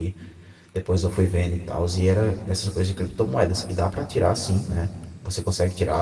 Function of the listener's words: listening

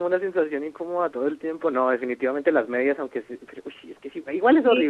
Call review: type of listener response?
taking over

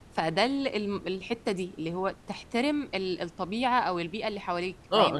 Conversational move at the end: taking over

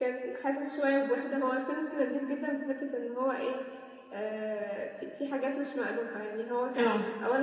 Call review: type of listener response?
listening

